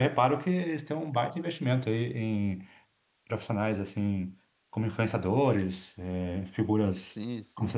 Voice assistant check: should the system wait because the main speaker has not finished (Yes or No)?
No